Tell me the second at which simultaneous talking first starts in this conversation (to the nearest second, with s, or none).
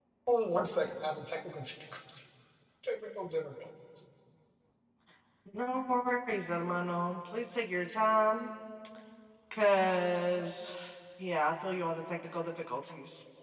none